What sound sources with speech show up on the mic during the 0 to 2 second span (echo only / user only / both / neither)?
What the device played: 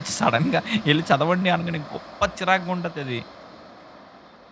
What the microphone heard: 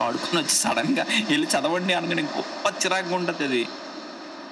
echo only